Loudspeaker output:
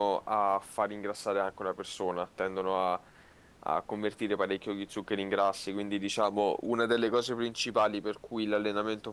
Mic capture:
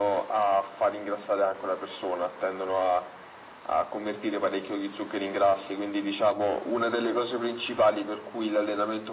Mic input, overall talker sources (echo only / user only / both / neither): echo only